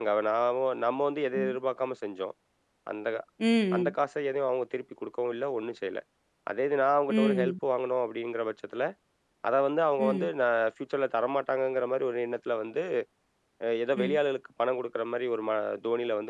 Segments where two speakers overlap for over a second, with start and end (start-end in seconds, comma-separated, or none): none